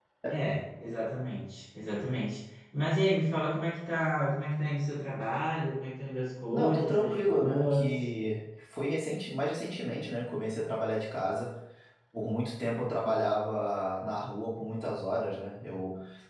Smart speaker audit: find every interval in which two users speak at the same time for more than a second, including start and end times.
6.5-7.9

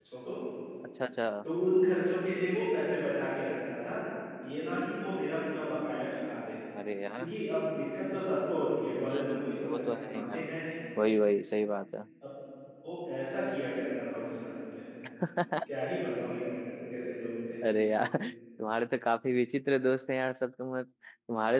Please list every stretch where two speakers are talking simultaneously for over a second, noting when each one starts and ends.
9.0-10.5

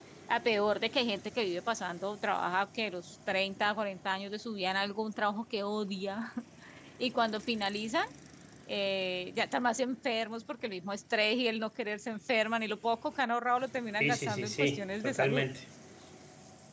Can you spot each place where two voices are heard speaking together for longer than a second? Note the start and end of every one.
14.0-15.4

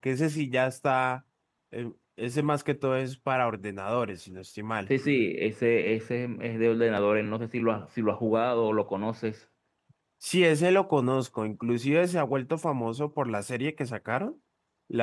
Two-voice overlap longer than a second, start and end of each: none

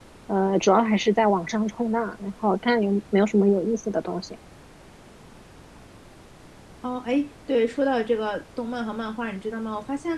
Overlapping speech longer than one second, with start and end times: none

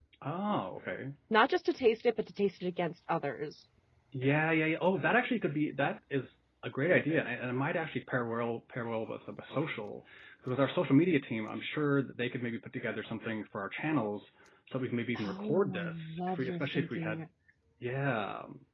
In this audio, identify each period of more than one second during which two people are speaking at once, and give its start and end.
15.2-17.2

